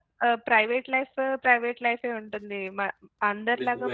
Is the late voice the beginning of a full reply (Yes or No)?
No